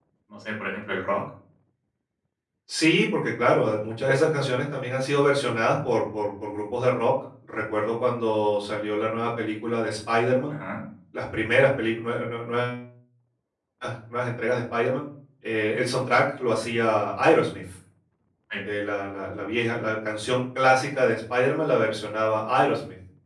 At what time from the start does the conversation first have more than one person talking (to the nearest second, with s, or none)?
none